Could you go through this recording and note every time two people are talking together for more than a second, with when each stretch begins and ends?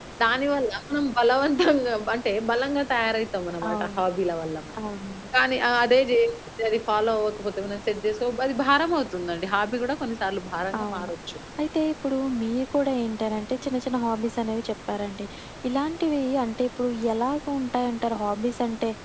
none

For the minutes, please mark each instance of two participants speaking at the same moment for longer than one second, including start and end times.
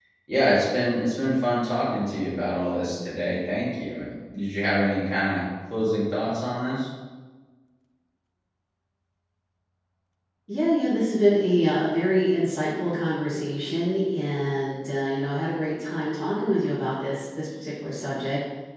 none

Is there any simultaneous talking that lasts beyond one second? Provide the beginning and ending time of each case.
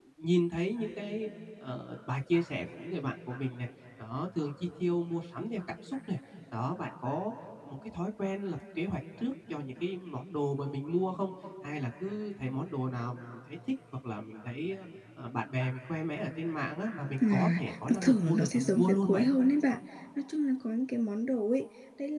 17.2-19.3

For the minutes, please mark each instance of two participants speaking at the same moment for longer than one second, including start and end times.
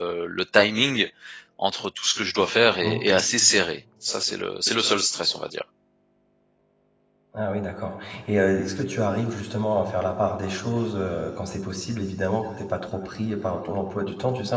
none

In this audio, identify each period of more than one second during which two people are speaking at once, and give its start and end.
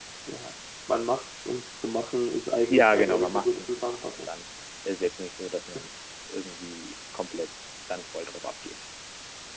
2.7-4.3

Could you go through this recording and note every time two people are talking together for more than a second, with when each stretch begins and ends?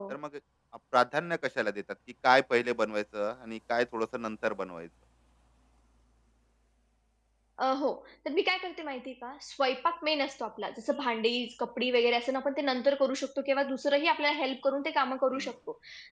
none

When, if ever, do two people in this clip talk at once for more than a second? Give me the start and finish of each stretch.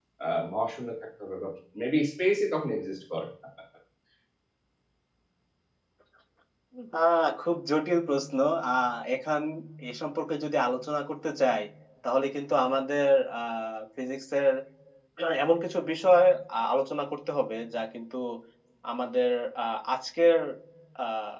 none

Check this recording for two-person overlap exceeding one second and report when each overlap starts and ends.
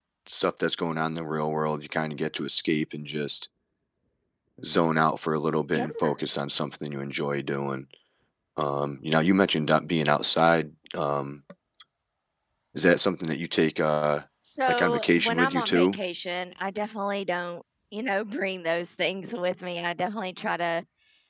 14.7-15.9

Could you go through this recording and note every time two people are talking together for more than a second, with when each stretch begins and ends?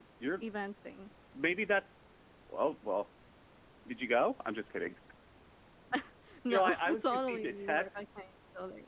6.5-8.0

